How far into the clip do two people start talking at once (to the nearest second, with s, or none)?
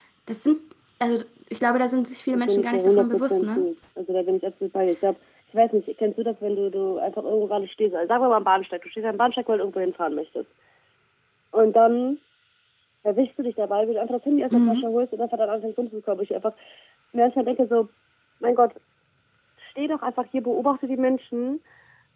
2 s